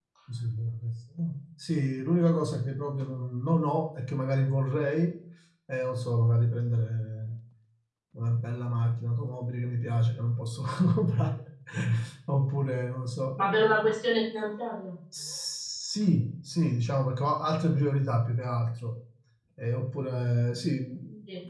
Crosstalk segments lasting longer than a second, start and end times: none

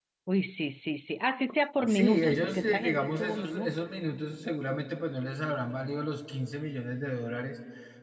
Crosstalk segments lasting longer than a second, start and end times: 1.9-3.9

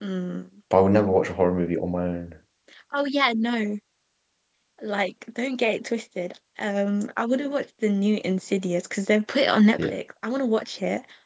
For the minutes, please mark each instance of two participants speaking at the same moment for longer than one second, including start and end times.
none

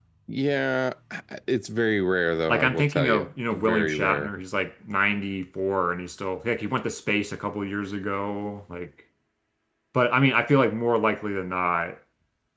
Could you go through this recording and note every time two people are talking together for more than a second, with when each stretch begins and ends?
2.5-4.3

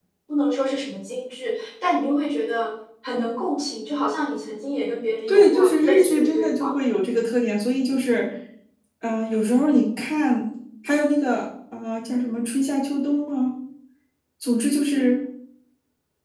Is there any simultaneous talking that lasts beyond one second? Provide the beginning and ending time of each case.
5.3-6.7

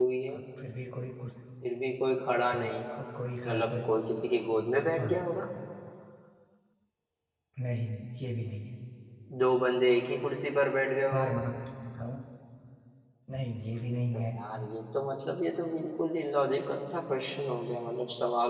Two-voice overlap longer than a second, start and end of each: none

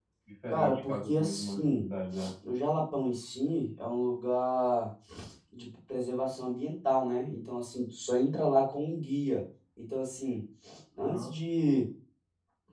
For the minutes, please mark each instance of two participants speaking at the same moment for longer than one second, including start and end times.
0.5-1.9

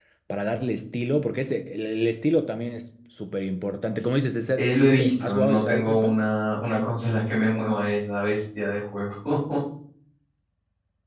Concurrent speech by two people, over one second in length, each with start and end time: 4.6-6.2

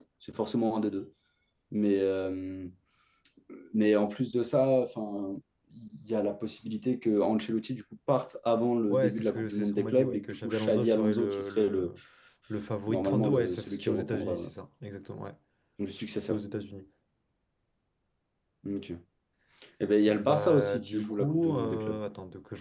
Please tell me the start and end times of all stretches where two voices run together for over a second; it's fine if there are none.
8.9-11.9, 12.9-14.5, 20.1-22.0

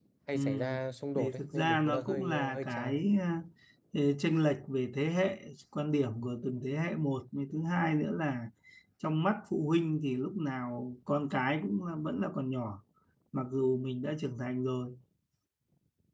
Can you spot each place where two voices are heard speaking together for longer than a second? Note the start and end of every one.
1.1-3.0

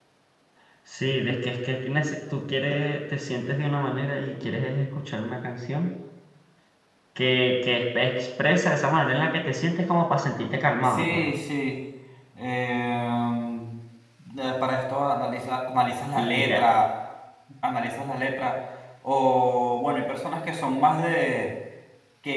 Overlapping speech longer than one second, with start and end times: none

